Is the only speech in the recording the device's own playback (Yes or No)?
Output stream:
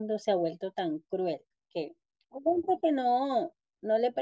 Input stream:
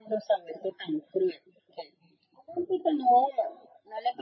Yes